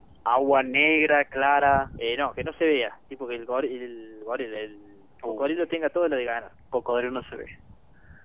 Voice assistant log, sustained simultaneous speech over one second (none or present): none